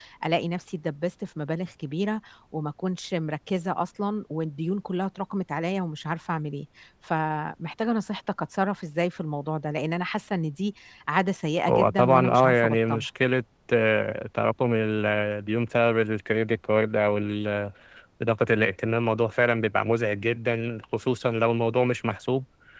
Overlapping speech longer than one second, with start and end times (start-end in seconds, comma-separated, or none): 11.7-13.0